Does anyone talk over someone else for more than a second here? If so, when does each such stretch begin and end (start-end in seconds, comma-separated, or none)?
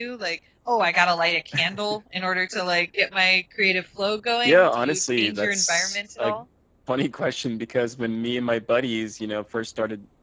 4.4-6.3